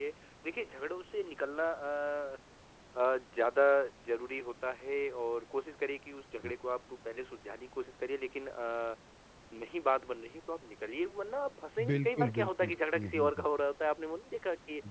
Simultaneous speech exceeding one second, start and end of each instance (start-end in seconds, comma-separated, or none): 11.9-13.5